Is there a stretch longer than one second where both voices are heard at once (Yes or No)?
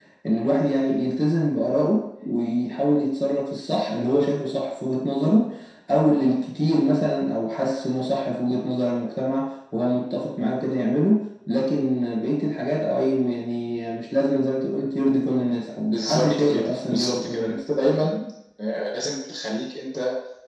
Yes